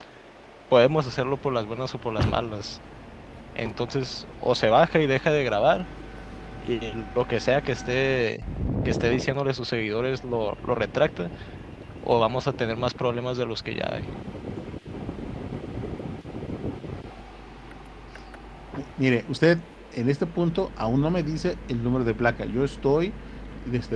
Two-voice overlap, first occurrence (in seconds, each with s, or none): none